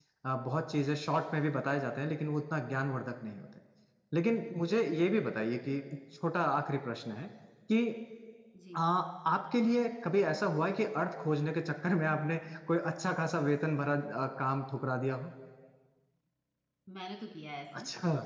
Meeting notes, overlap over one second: none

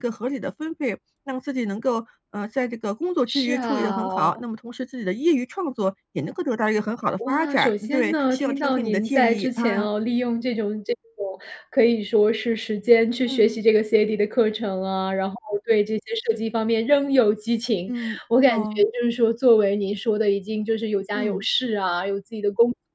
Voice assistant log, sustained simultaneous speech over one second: present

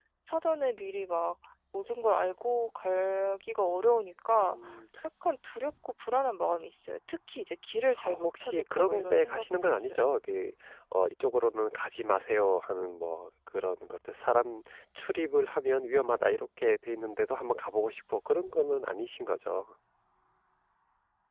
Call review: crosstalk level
present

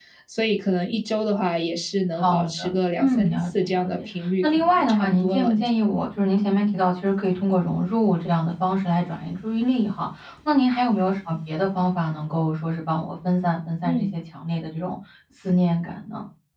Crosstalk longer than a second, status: present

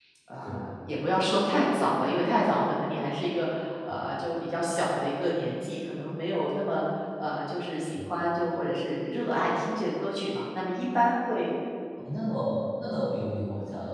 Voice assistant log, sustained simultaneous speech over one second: none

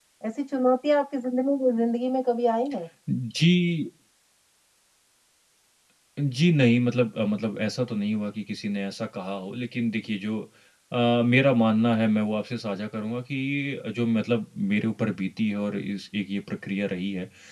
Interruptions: none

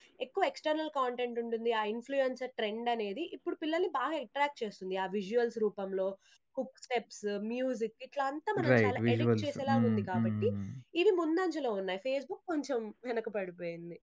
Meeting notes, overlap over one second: present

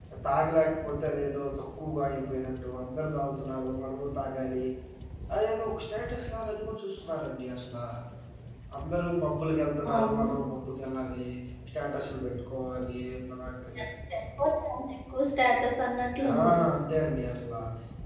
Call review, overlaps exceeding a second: none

